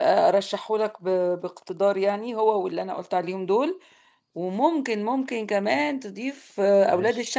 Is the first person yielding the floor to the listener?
No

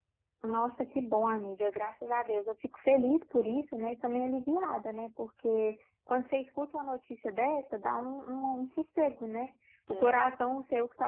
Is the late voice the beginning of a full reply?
No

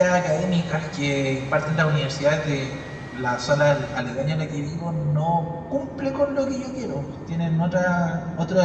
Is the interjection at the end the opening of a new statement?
No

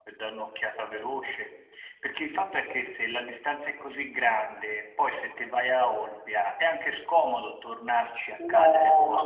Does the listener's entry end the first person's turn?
Yes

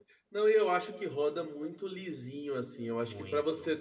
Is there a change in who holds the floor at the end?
No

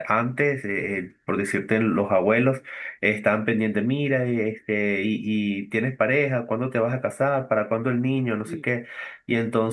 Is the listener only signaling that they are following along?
Yes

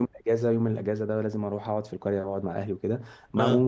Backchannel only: Yes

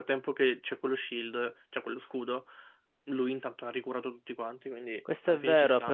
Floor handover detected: Yes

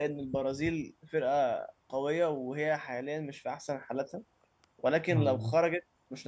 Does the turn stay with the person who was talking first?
Yes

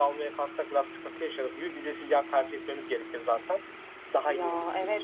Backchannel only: No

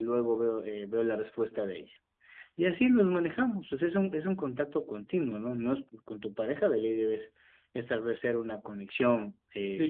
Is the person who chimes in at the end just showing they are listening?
No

